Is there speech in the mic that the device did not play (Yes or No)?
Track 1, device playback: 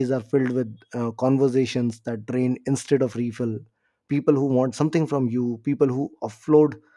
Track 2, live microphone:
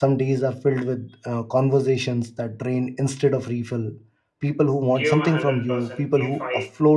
Yes